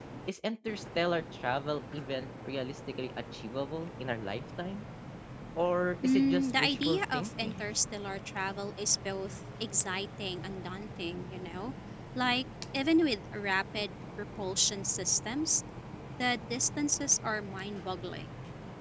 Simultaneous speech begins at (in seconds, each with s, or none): 6.0 s